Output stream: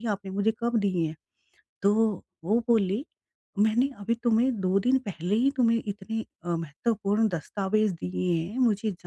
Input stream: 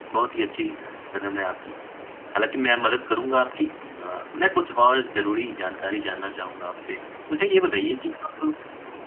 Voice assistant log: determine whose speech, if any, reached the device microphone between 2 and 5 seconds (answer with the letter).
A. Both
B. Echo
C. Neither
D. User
D